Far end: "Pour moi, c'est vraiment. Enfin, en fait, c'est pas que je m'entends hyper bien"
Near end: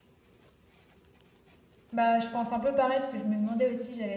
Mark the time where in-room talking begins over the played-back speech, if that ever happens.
1.9 s

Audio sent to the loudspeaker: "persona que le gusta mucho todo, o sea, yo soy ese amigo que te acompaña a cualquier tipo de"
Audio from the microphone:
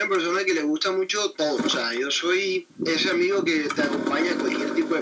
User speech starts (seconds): none

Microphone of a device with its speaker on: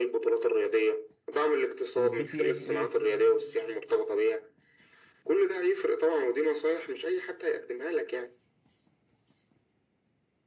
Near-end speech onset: 1.9 s

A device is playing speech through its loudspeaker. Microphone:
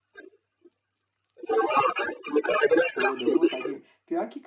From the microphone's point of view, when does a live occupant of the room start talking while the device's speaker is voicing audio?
2.9 s

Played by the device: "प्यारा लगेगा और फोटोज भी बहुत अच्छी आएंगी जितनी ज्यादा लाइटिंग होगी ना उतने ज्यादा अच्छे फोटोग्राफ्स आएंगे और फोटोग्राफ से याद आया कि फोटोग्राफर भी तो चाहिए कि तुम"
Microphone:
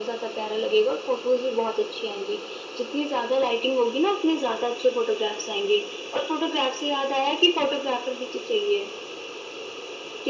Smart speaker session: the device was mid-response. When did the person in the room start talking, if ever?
none

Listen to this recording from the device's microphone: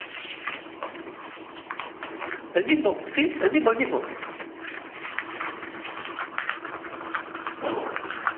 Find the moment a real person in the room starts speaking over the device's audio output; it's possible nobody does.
2.5 s

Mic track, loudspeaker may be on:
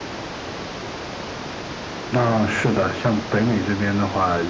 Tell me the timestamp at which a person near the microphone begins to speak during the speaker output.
none

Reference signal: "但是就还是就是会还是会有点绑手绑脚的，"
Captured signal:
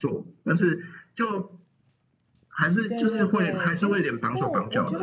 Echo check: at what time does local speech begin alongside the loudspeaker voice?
2.8 s

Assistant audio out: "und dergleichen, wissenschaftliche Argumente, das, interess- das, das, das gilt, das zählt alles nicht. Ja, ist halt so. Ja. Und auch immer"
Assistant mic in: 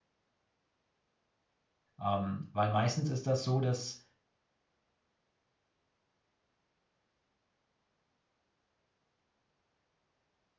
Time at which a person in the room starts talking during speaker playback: 2.0 s

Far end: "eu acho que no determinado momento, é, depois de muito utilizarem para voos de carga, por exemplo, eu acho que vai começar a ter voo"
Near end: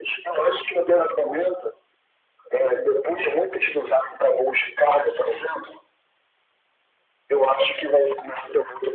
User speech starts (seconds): none

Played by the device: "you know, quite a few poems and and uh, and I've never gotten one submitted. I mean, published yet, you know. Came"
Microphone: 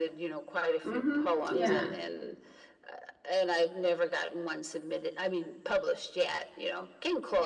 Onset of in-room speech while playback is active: 0.8 s

